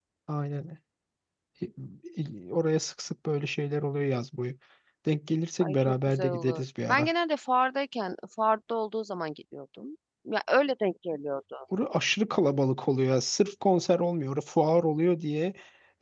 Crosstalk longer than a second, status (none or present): present